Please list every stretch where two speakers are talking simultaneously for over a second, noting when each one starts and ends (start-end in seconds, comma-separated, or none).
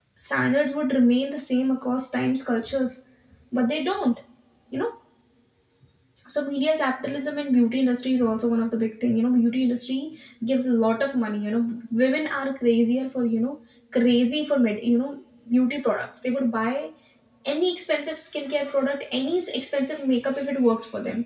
none